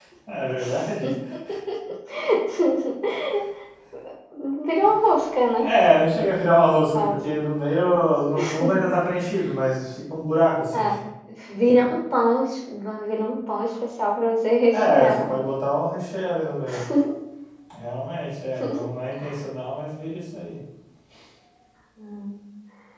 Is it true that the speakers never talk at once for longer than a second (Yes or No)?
Yes